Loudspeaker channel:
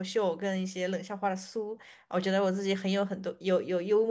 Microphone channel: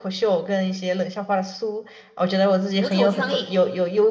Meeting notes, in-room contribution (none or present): present